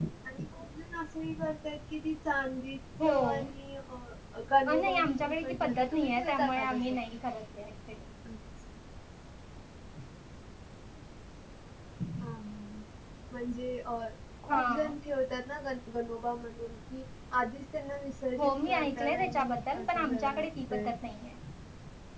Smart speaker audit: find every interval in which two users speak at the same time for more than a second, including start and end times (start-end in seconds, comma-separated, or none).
4.7-6.8, 18.4-20.9